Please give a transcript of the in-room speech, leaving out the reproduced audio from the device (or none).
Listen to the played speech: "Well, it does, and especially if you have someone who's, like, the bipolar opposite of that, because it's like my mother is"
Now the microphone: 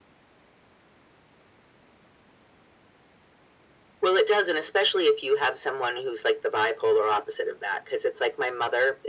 none